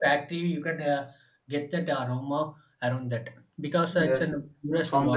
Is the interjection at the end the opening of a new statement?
Yes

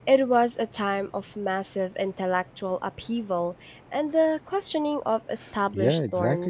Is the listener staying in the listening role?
No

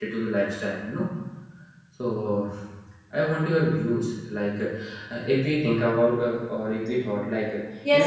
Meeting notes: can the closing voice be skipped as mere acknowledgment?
No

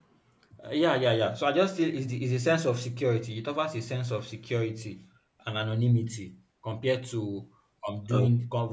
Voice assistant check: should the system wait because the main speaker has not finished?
Yes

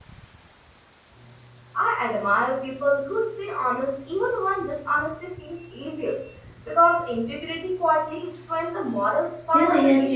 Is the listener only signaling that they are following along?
No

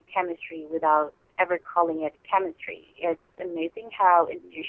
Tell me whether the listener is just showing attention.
Yes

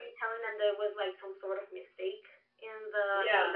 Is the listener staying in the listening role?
Yes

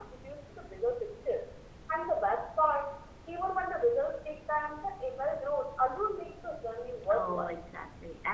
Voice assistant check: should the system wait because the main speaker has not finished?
No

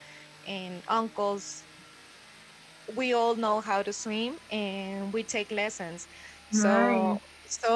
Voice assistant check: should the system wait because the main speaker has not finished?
Yes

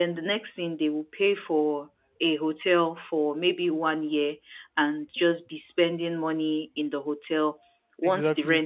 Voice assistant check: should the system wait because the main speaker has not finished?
Yes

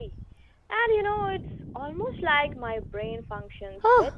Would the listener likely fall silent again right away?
No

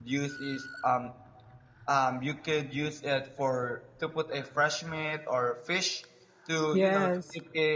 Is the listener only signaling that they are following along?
Yes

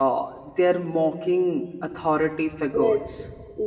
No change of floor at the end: No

